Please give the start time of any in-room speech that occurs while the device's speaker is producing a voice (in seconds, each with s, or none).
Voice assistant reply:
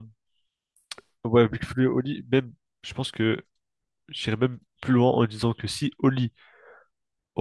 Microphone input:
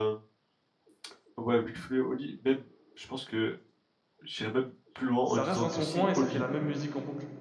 5.2 s